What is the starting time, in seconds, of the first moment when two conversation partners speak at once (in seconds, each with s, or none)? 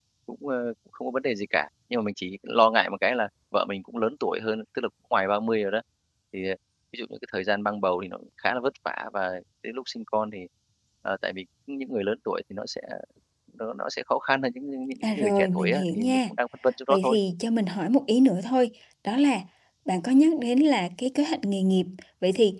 15.0 s